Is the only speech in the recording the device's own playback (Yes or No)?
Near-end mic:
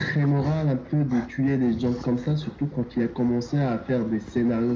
Yes